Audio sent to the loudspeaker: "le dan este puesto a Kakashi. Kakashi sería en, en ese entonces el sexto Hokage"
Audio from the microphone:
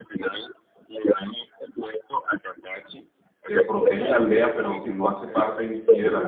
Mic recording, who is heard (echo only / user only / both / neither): both